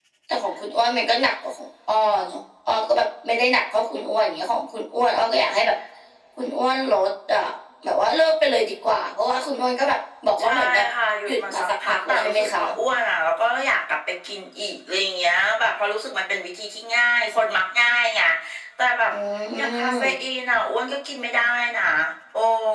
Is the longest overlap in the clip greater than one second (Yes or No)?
Yes